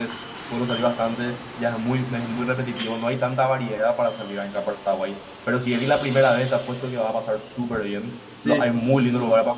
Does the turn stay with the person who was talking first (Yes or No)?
Yes